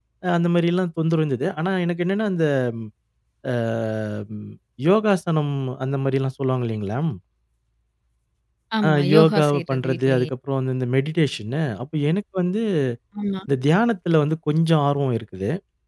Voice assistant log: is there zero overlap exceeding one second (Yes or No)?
No